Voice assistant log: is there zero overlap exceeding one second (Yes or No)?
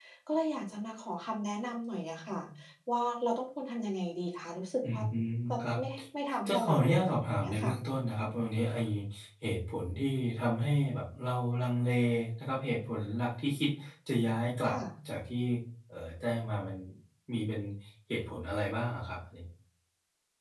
No